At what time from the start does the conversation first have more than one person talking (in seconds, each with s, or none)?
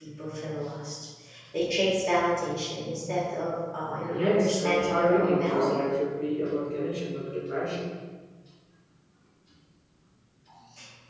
4.1 s